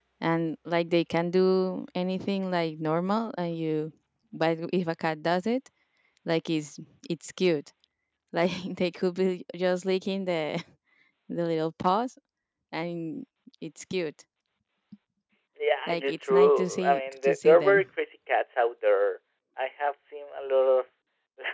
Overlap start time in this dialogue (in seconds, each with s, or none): 15.9 s